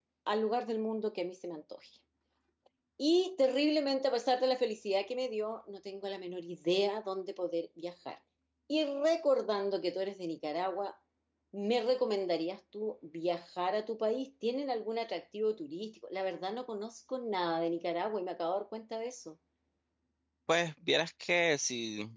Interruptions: none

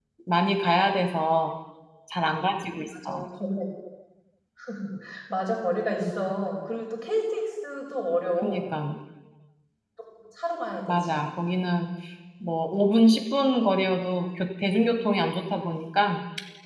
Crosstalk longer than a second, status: none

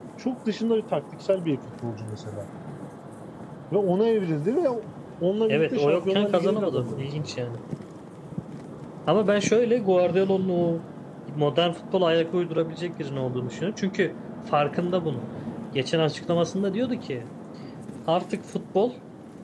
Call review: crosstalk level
present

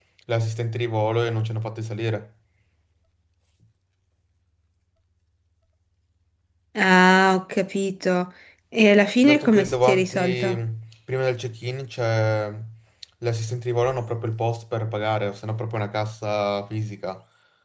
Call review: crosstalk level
present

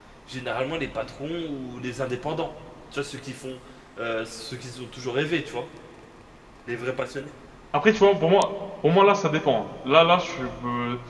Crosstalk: none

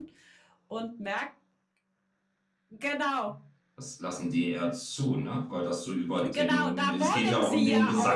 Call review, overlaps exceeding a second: present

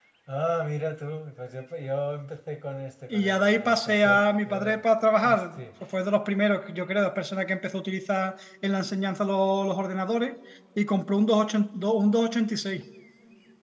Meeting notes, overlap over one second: present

